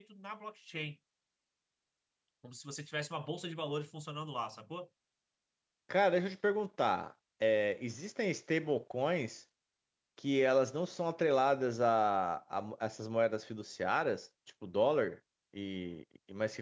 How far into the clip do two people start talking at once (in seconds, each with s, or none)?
none